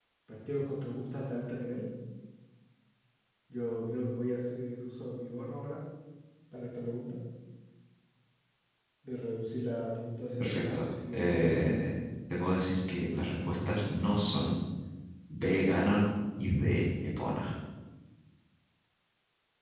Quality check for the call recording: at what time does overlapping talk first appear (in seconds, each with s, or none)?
10.4 s